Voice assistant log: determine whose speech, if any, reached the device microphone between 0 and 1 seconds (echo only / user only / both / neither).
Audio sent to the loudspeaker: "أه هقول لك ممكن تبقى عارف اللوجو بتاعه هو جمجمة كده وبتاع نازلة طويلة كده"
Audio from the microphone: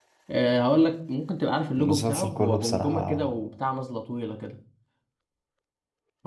echo only